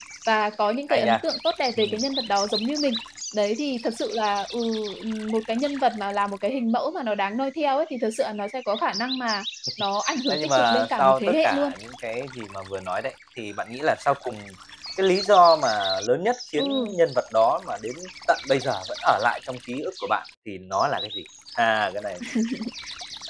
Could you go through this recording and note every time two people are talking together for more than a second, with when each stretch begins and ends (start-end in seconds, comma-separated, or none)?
10.3-11.7